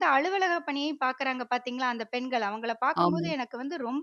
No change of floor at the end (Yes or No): Yes